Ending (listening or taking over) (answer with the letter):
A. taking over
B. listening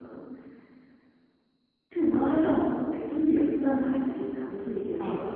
B